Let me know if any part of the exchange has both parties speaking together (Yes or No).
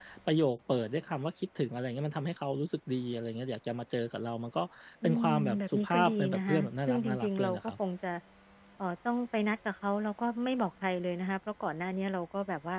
Yes